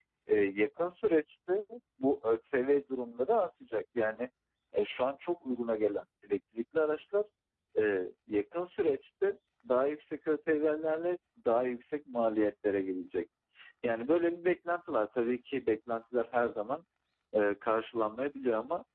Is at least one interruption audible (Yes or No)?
No